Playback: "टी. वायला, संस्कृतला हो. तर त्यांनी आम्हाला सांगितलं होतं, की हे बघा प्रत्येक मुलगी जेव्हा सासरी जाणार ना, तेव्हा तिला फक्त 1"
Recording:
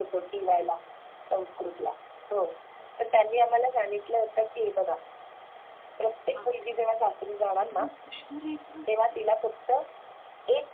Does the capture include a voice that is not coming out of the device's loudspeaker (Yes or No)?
Yes